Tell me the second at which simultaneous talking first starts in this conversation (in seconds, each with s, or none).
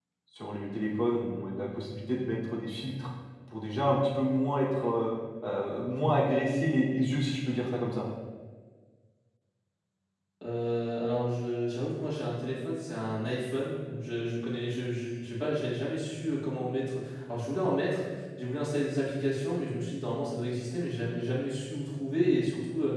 none